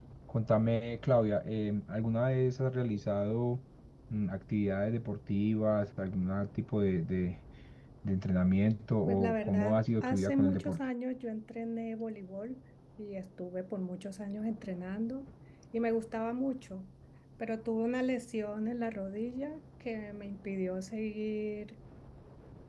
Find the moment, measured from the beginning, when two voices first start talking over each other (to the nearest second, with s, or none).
9 s